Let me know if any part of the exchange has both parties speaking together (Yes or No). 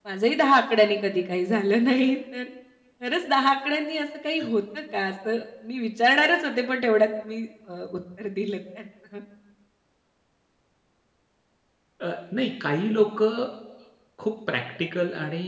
No